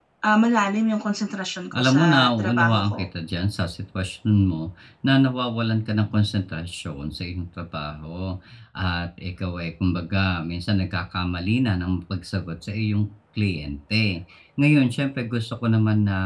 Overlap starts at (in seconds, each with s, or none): 1.7 s